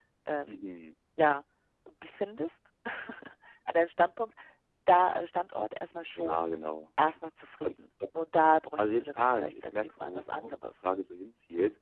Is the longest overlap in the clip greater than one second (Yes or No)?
Yes